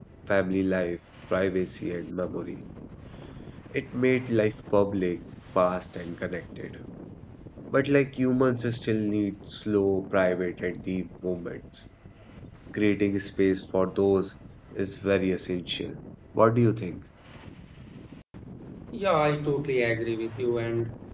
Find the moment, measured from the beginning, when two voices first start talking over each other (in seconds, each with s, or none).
none